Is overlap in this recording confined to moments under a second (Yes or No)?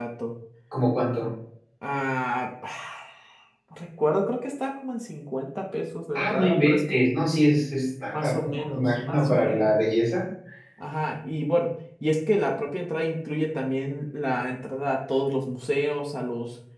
No